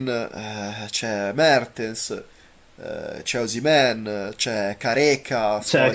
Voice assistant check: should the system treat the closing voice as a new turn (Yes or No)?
Yes